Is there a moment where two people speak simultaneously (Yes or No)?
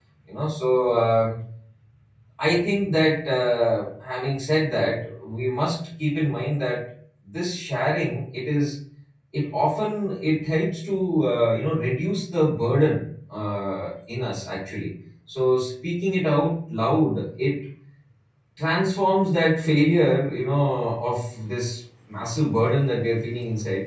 No